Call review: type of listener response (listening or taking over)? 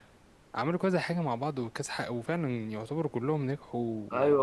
taking over